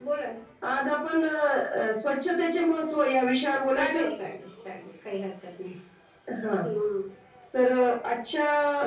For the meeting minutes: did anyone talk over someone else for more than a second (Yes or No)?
No